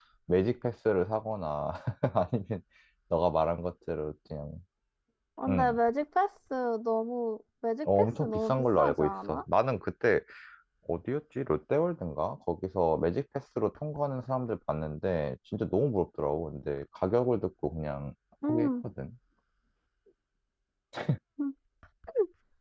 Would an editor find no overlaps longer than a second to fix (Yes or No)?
No